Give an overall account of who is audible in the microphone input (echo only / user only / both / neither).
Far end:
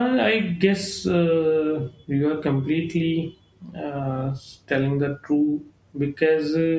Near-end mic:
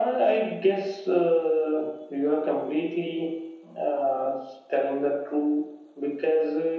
echo only